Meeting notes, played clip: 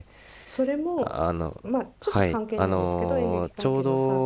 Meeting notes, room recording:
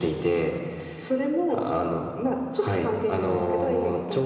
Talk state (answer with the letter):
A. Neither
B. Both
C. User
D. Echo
D